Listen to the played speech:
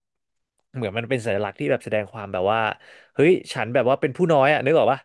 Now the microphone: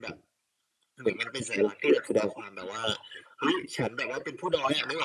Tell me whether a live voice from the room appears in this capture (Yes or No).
No